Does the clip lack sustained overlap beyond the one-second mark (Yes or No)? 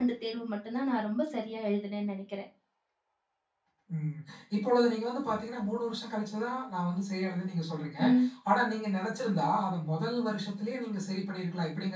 Yes